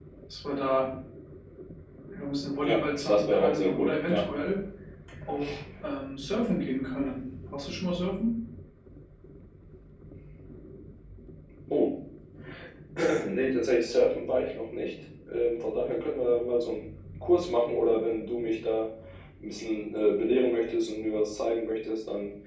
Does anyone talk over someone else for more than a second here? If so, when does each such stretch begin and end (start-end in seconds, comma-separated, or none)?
2.6-4.2